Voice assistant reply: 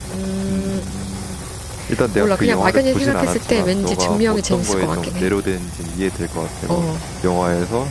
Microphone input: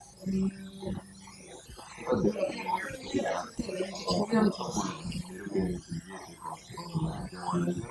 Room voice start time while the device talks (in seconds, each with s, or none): none